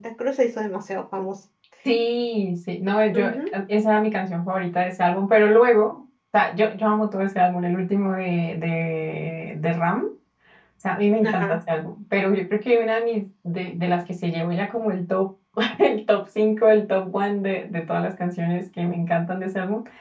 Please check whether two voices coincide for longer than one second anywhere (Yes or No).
No